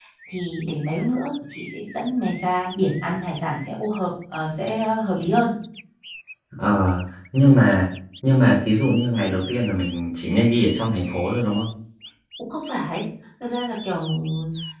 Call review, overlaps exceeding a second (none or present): none